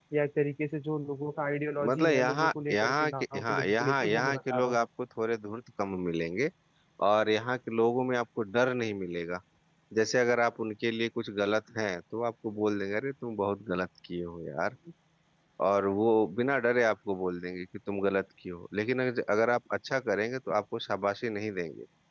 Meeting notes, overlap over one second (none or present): present